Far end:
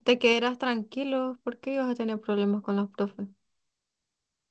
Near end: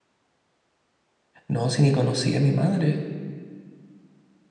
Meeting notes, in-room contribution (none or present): present